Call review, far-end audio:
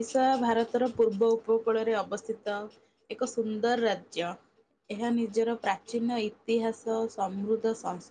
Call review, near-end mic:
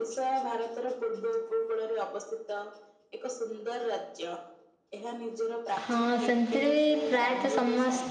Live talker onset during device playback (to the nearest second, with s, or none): 6 s